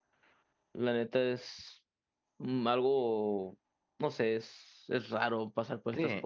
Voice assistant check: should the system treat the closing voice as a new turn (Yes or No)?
Yes